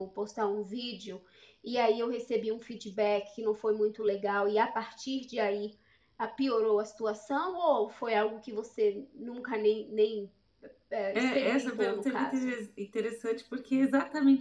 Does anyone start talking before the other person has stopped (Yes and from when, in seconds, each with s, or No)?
Yes, from 11.2 s